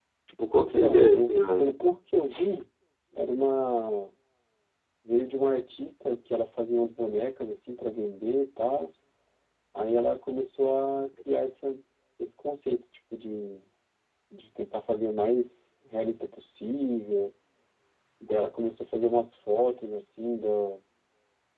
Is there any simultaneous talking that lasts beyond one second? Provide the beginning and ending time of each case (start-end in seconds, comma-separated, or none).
0.6-1.8